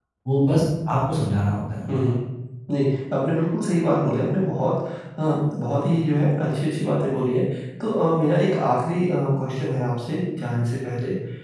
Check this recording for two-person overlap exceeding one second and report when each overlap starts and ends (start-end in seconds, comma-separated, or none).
none